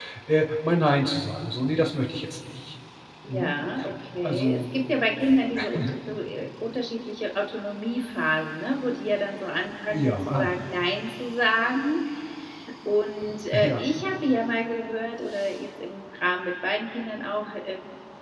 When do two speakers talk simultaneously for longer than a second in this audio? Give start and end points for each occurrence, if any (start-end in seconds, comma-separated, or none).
none